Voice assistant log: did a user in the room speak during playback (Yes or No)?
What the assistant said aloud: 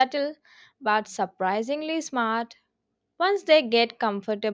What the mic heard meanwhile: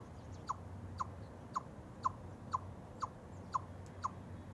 No